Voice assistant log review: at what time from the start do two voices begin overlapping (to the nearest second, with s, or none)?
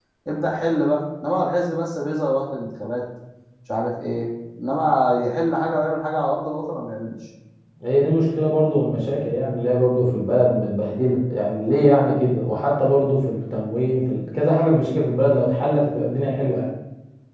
none